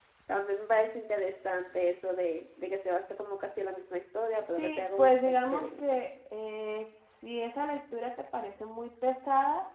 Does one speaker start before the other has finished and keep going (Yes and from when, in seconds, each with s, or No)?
Yes, from 4.6 s